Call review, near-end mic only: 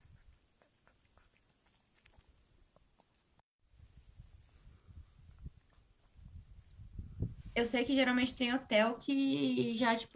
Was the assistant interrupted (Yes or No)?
Yes